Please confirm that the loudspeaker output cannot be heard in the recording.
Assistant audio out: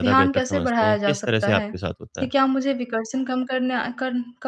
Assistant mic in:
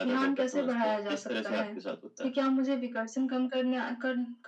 No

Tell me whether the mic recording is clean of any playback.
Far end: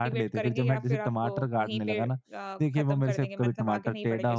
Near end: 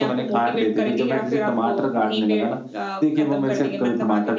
No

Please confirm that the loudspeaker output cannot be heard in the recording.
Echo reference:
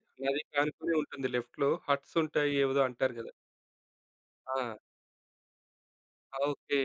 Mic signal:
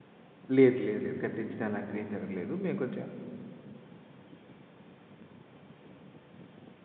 Yes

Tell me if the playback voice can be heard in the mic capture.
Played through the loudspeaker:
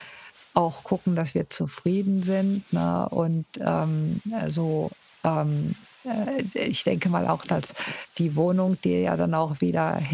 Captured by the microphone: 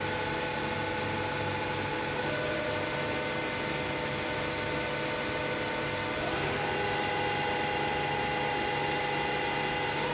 No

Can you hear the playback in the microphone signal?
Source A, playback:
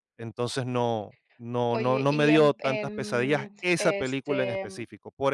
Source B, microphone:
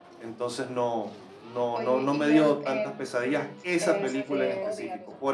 Yes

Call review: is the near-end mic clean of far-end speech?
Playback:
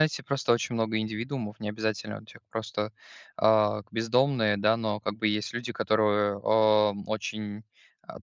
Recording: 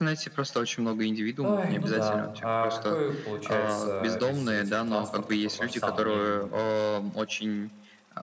No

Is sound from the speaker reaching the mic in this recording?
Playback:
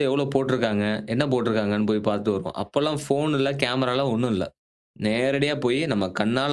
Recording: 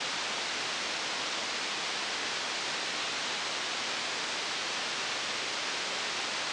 No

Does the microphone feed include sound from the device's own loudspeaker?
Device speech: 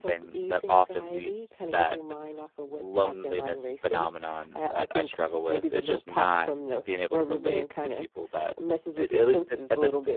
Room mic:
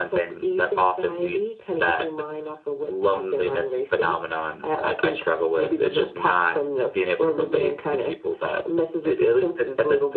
Yes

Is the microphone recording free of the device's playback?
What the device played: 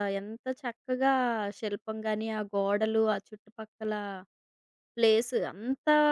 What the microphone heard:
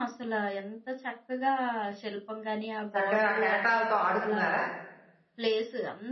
No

